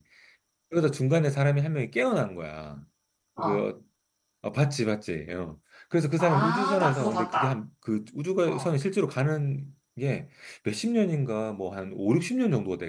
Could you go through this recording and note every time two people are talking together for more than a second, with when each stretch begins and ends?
6.2-7.5

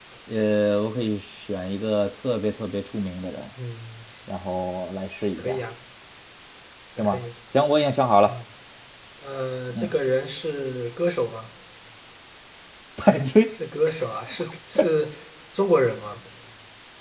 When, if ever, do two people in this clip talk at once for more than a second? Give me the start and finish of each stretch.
none

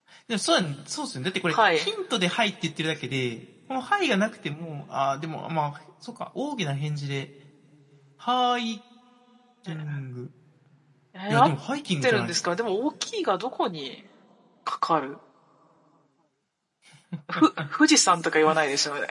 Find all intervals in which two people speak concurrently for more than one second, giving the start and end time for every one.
none

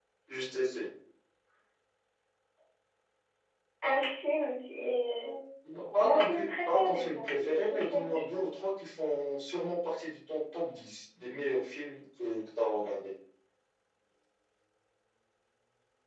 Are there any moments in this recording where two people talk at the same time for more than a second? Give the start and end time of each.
6.0-8.4

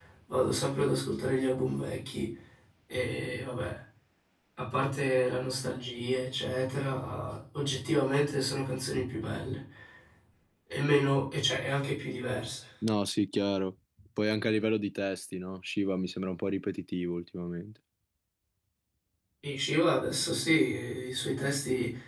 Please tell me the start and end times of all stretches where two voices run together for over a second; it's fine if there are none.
none

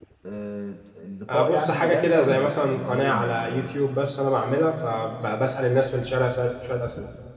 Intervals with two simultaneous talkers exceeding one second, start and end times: 1.3-3.8

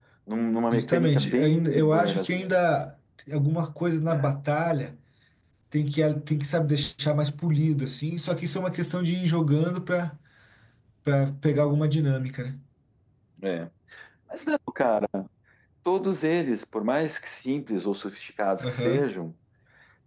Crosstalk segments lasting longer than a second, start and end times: 0.7-2.5

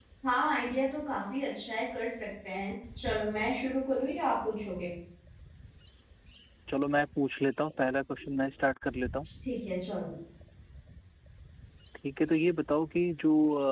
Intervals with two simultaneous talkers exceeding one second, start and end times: none

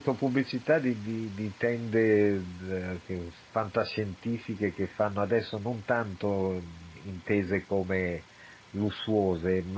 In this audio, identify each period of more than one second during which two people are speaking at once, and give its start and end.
none

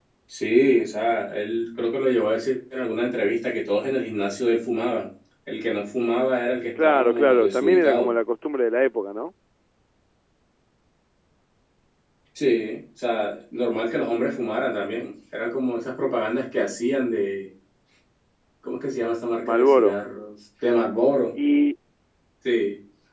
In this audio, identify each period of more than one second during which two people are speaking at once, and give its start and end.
6.8-8.1

